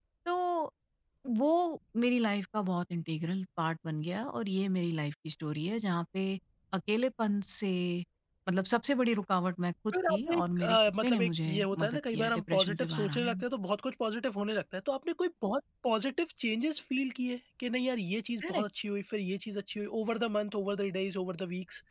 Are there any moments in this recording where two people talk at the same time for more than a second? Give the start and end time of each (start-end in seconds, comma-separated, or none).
9.9-13.4